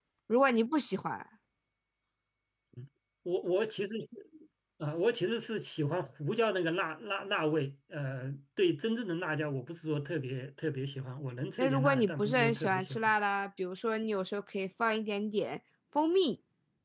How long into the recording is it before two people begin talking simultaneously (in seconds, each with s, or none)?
11.6 s